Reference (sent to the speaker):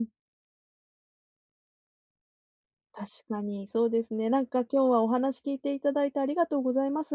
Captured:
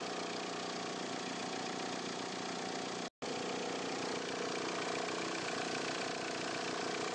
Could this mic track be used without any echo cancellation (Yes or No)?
Yes